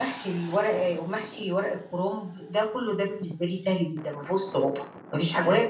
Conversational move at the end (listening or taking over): listening